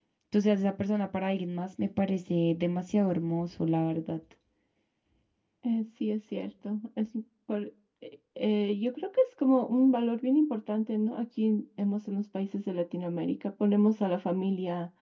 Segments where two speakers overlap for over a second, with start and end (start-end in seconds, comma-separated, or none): none